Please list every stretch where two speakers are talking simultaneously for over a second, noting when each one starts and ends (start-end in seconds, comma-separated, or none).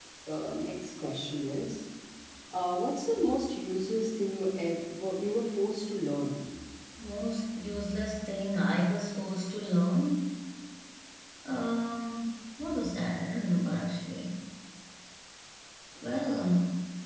none